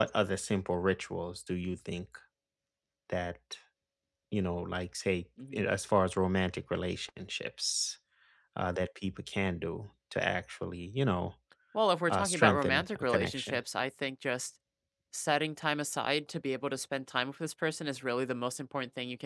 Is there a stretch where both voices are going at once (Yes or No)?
Yes